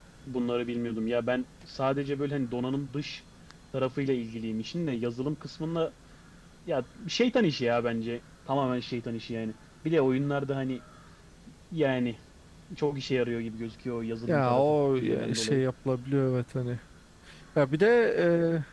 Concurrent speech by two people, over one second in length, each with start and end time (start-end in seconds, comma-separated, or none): 14.3-15.6